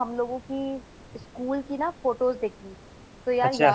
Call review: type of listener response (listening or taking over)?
listening